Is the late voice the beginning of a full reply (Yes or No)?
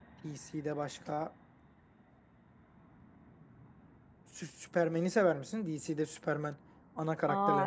Yes